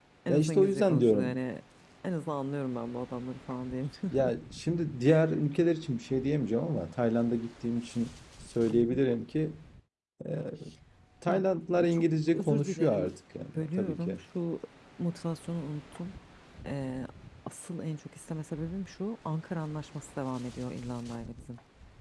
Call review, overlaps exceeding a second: present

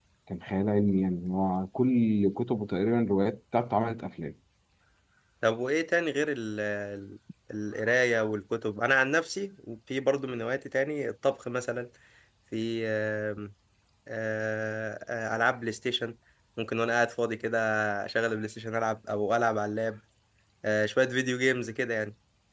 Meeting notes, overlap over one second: none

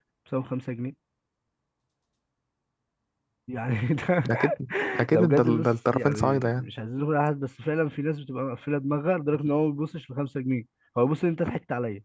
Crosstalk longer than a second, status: present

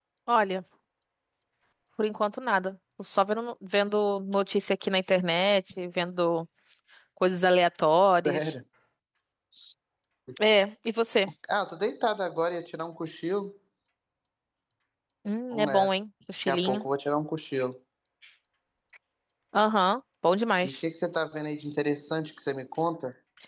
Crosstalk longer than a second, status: none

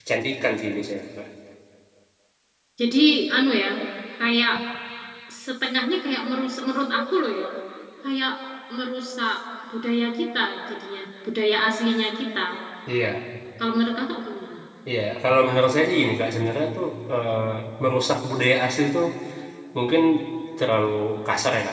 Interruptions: none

